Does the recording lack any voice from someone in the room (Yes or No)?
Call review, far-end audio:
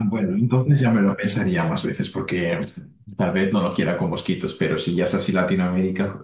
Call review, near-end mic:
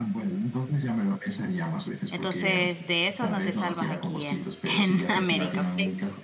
No